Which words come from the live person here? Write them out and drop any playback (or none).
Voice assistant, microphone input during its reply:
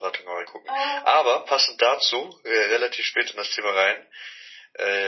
Ähm,